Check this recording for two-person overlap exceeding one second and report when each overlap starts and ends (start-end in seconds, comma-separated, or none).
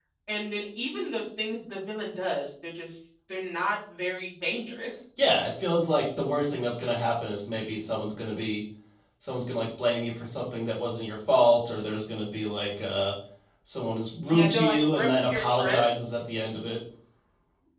14.2-15.8